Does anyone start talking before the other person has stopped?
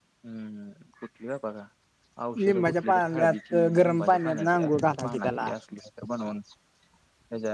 Yes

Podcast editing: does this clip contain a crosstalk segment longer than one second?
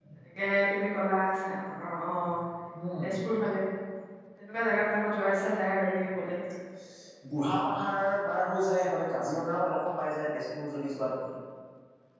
No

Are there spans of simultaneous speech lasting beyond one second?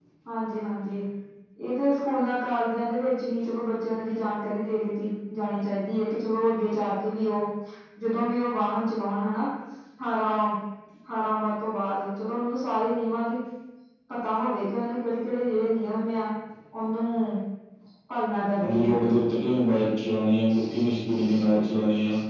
No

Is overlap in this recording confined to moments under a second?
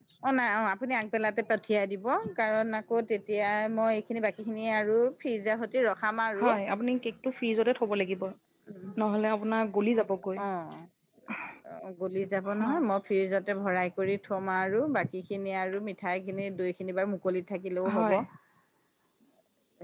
Yes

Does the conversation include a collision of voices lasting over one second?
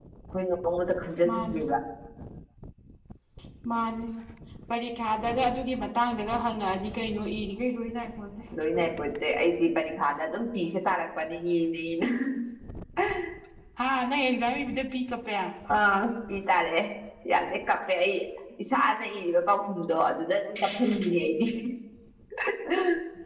No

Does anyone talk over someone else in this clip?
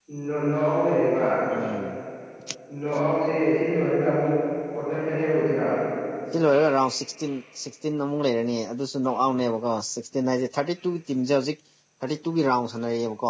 No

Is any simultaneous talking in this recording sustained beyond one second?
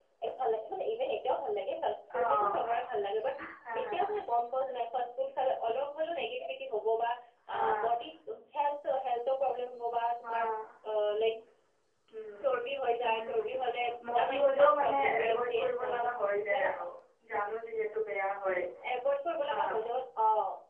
Yes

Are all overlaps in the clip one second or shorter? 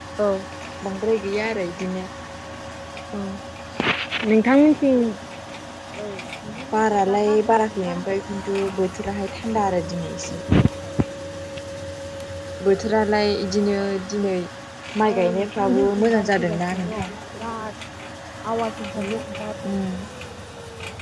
No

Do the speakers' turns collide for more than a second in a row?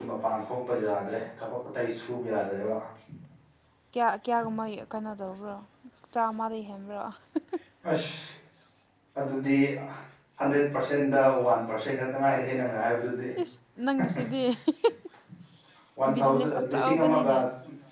Yes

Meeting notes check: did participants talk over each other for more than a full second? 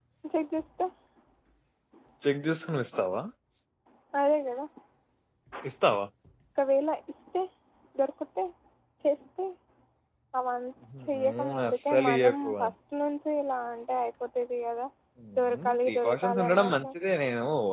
Yes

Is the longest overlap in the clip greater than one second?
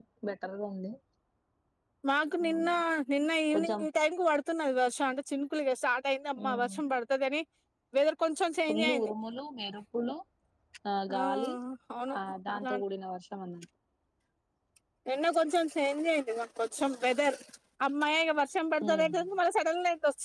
No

